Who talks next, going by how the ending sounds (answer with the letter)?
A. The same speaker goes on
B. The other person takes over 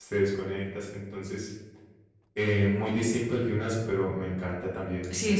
B